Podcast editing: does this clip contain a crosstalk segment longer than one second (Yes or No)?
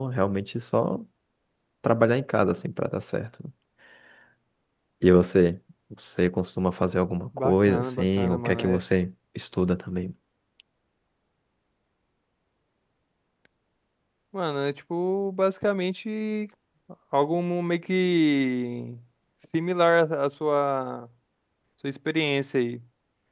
Yes